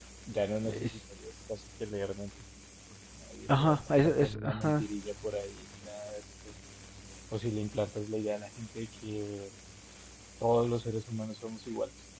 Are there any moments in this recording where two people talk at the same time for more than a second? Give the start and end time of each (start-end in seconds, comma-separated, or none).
3.5-4.9